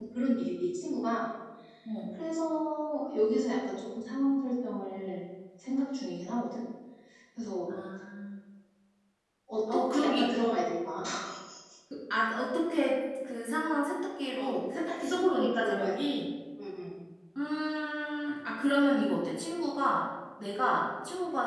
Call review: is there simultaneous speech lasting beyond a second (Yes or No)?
Yes